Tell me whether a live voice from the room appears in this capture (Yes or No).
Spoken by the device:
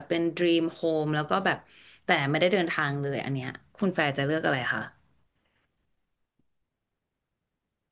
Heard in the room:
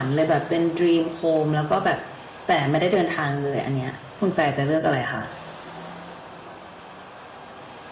No